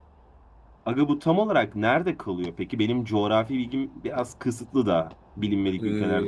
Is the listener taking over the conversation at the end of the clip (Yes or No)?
Yes